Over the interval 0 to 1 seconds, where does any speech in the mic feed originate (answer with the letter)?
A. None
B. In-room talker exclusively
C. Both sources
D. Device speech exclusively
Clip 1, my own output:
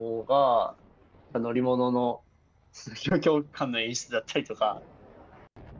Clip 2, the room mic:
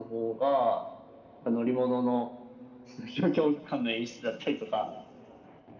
D